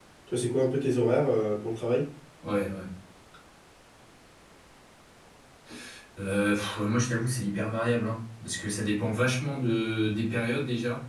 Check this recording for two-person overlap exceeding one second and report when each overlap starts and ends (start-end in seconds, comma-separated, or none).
none